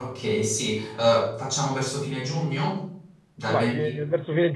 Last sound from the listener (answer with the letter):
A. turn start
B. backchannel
A